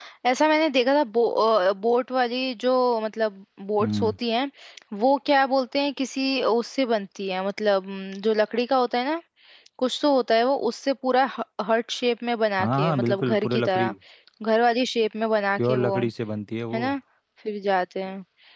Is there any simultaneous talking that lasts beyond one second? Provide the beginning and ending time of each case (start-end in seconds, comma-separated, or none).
12.6-13.9